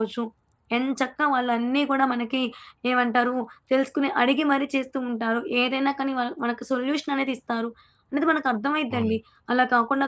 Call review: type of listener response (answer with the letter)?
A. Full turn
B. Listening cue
B